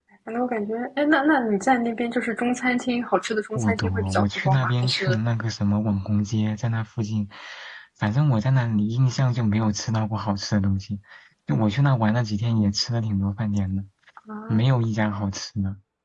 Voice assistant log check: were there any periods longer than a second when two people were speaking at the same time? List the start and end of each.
3.5-5.2

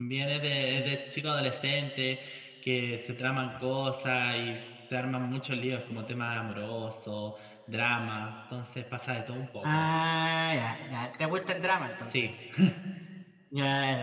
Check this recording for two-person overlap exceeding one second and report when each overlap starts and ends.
none

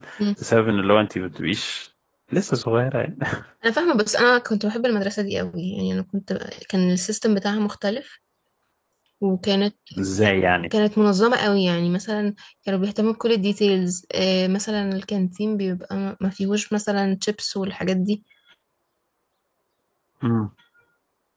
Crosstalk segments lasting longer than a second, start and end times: none

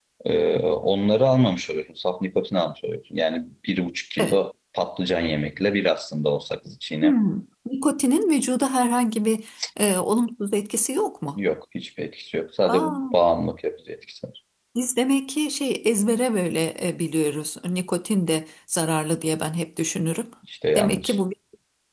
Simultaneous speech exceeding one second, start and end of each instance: none

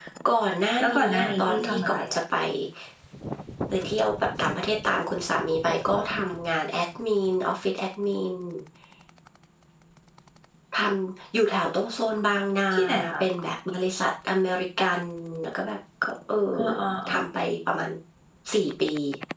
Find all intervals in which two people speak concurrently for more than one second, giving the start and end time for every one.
0.8-2.2

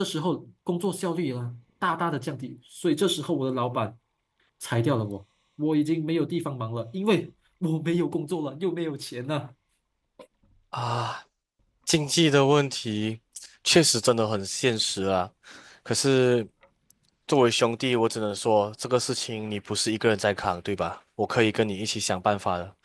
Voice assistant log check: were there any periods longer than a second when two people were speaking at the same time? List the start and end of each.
none

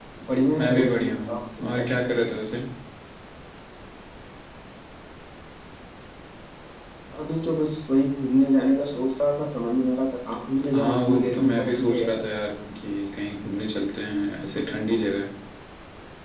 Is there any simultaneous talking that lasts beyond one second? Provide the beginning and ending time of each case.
0.6-2.2, 10.8-12.2

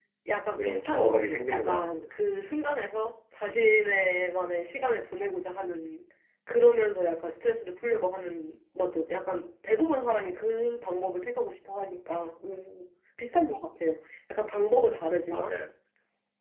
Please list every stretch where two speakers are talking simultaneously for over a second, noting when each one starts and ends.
0.6-2.0

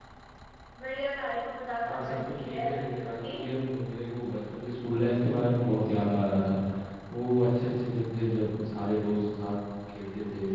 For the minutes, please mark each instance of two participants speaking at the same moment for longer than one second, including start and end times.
1.8-3.4

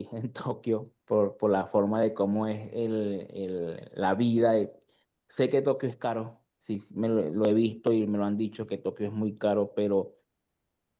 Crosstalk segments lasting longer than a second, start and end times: none

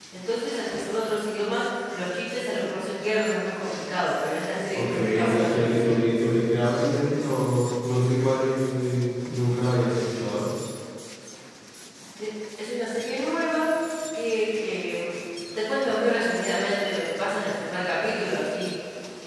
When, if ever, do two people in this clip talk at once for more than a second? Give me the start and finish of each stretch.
4.7-6.0

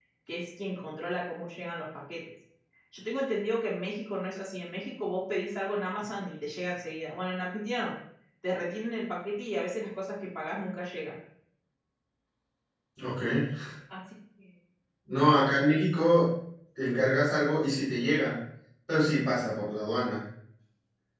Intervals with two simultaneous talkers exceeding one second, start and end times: none

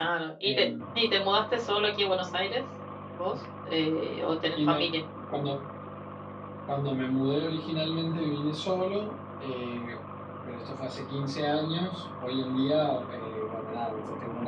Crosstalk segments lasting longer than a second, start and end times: none

